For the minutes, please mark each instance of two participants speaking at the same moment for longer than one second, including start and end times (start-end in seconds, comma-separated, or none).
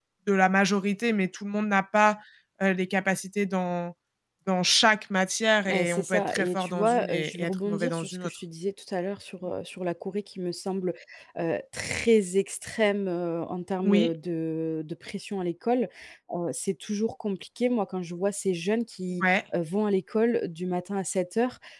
5.7-8.4